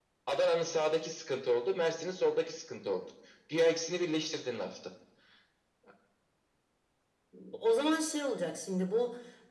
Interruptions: none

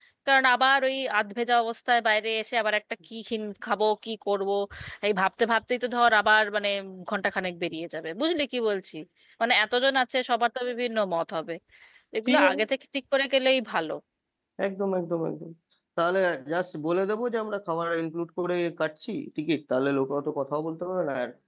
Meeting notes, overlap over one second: none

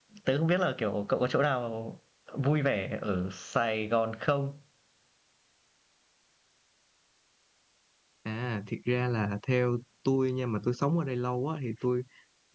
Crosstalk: none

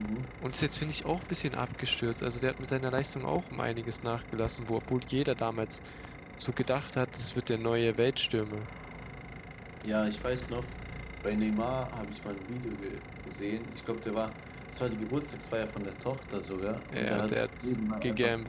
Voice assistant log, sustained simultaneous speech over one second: present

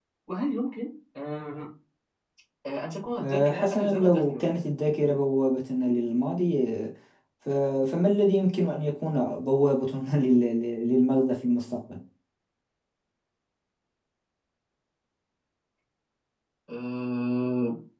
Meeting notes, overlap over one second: present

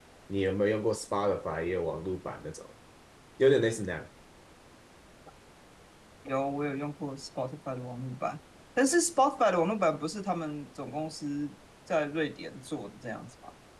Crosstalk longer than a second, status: none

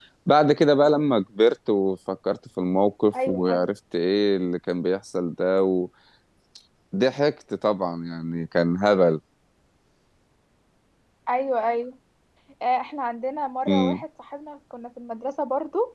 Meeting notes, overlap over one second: none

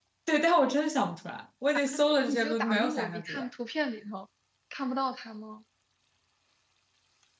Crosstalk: present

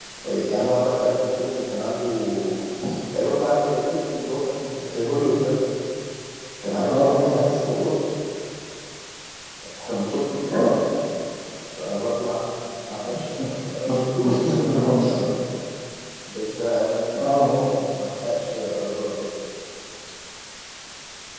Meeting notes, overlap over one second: present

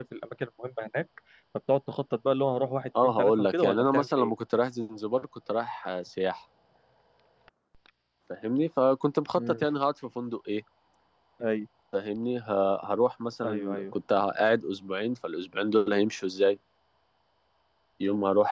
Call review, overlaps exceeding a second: present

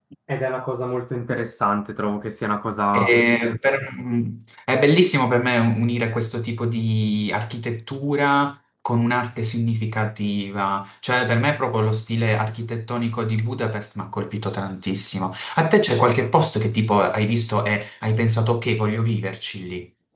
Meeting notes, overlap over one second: none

